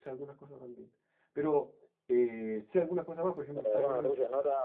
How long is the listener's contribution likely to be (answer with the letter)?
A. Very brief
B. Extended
B